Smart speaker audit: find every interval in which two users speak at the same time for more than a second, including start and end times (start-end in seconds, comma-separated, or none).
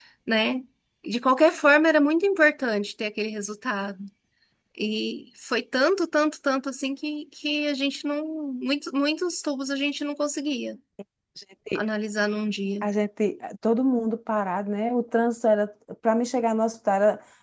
none